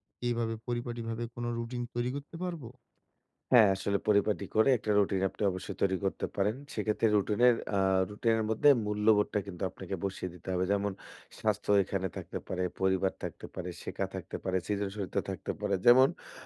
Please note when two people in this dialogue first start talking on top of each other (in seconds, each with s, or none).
none